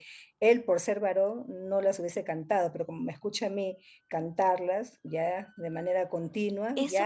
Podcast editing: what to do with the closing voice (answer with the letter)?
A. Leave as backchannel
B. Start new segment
B